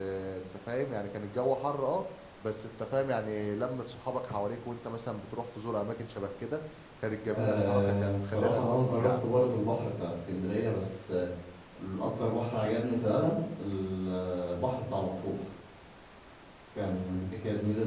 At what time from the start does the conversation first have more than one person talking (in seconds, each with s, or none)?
7.3 s